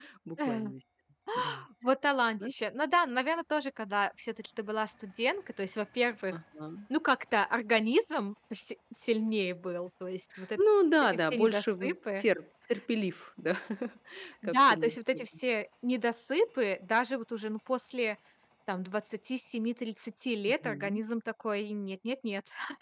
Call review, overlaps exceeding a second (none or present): present